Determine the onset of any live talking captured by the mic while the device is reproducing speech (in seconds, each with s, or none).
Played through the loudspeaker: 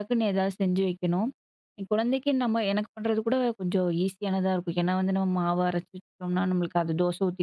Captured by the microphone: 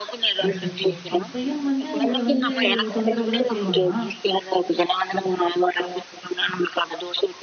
0.4 s